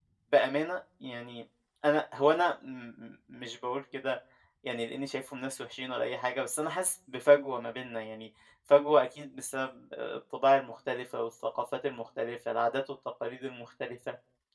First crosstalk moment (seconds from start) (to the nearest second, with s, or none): none